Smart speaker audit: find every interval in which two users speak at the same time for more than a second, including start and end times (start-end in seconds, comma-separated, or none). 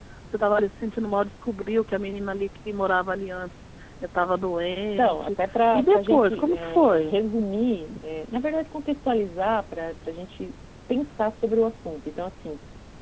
5.7-7.2